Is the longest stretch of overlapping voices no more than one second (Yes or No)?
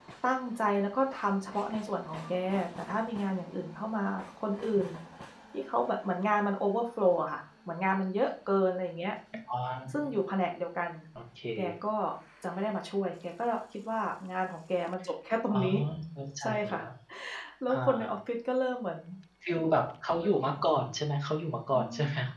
Yes